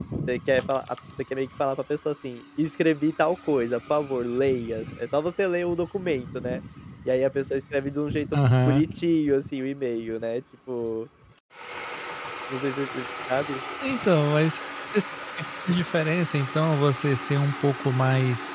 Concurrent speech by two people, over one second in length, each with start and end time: none

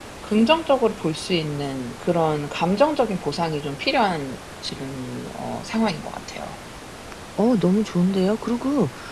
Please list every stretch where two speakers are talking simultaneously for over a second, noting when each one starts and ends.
none

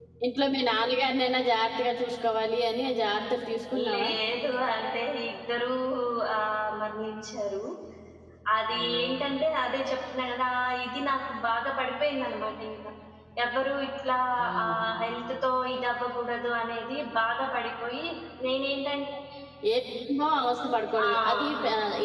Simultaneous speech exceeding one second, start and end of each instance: none

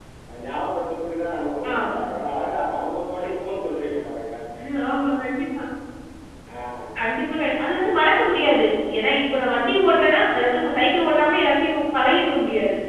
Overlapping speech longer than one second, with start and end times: none

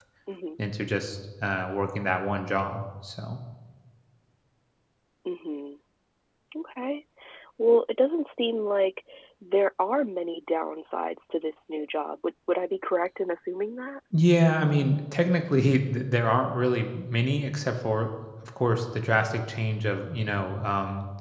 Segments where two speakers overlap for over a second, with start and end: none

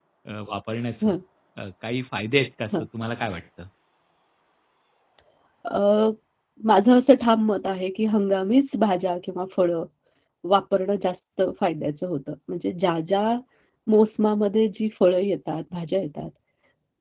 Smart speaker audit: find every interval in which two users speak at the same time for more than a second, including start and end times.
none

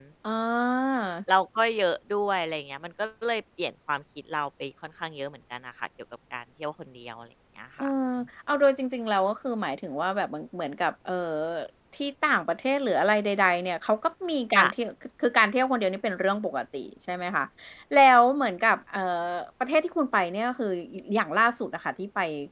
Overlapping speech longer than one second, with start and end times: none

